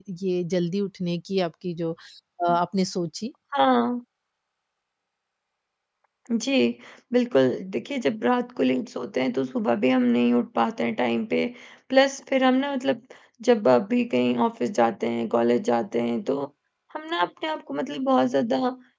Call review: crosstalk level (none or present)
none